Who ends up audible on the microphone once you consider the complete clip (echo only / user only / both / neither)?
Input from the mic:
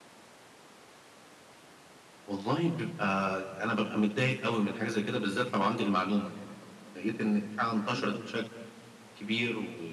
both